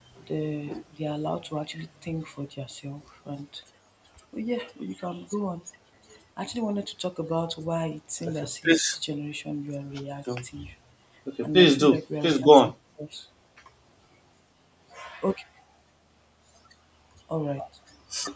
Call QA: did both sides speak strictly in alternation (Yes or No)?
No